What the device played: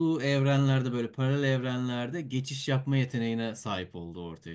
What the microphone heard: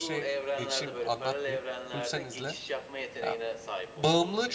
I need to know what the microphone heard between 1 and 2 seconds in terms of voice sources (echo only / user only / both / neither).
both